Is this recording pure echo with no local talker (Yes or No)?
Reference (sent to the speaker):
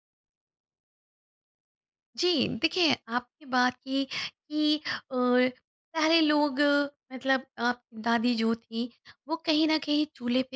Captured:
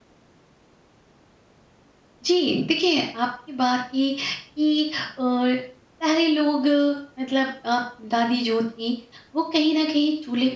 Yes